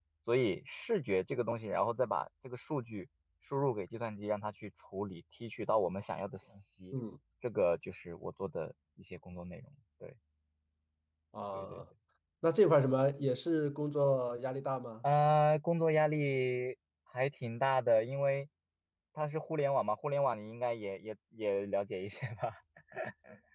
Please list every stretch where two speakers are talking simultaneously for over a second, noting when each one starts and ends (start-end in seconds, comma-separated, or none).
none